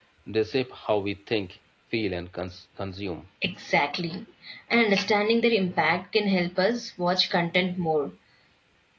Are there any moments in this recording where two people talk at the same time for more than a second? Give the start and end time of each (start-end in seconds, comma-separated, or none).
none